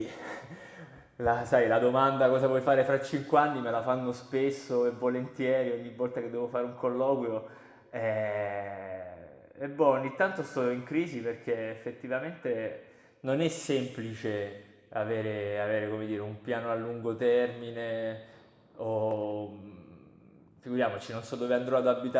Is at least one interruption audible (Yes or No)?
No